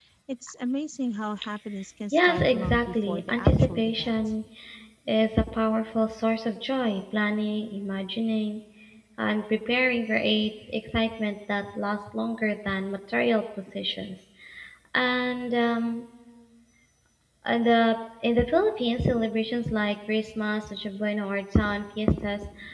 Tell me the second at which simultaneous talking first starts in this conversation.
2.1 s

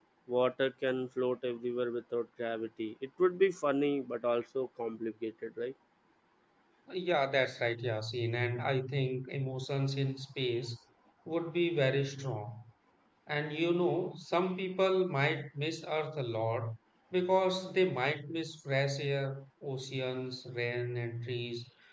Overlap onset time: none

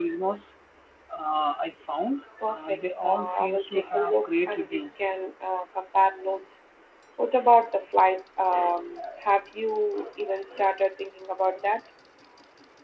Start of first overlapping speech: 2.4 s

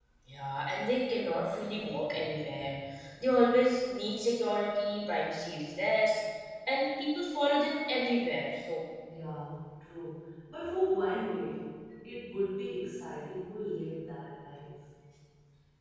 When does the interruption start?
none

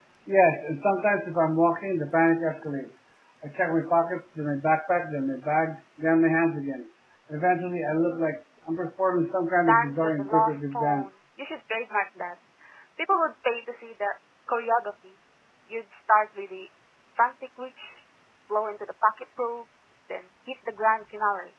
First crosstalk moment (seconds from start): 9.7 s

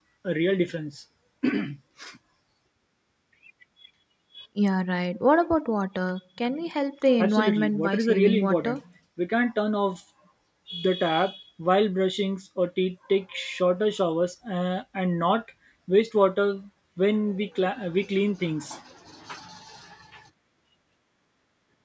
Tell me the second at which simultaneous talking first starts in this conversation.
7.2 s

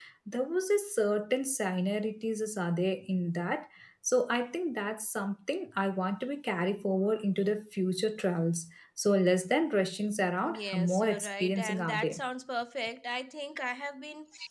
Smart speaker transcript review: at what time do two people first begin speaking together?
10.4 s

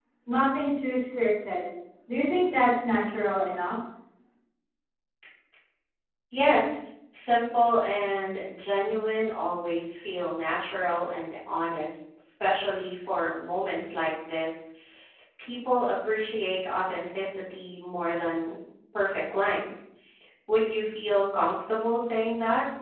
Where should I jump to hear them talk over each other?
none

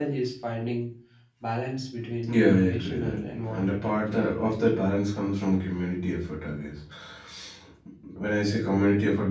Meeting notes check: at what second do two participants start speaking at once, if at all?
2.3 s

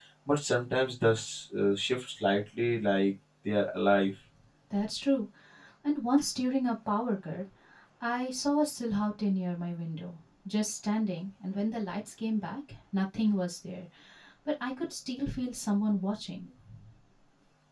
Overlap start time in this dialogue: none

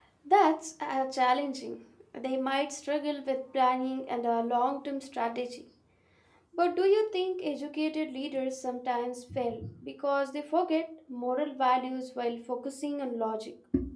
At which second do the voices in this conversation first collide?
none

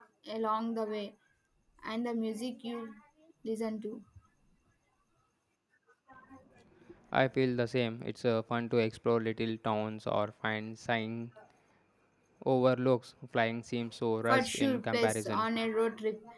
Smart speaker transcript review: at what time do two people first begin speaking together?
14.3 s

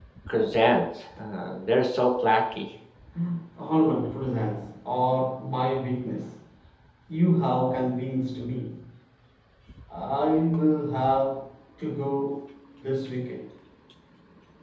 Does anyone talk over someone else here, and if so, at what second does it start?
none

